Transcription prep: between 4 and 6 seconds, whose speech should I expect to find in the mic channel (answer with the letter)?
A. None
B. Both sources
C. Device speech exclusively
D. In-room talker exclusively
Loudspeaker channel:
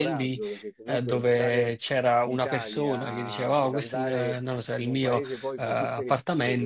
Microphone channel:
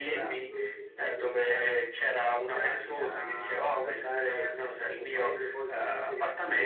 C